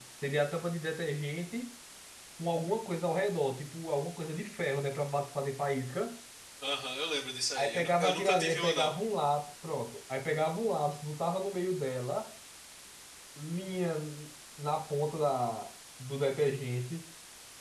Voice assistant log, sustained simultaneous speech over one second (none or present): present